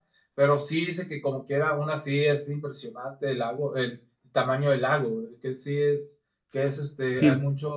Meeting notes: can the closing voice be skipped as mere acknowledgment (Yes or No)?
Yes